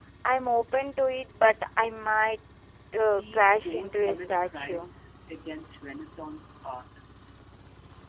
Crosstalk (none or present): present